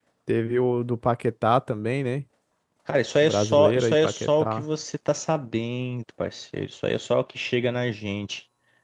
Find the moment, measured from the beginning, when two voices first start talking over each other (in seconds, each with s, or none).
3.2 s